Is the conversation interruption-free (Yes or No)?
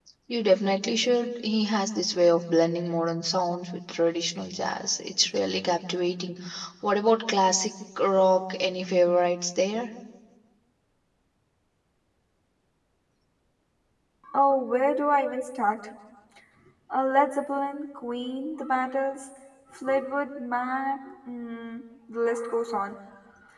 Yes